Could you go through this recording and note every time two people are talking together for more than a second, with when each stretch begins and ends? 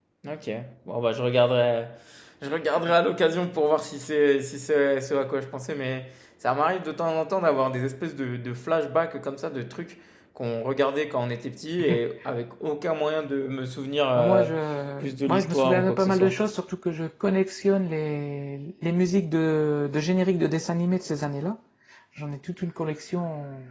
15.0-16.4

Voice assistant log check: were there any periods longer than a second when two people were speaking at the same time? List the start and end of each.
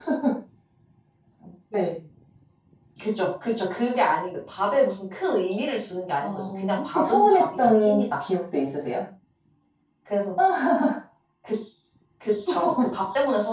6.2-8.0

